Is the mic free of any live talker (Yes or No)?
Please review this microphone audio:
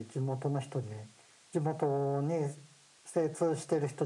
Yes